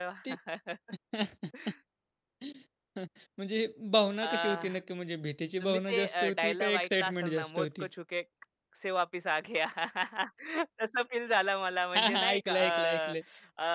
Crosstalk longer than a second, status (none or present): present